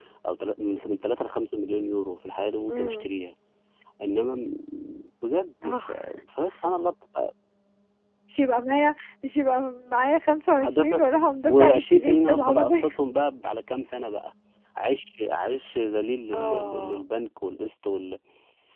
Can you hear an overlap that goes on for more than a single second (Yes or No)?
Yes